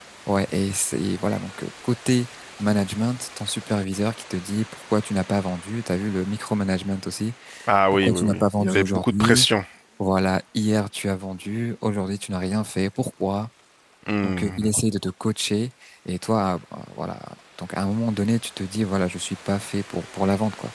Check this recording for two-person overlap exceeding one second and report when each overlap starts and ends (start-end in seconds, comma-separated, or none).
7.9-9.5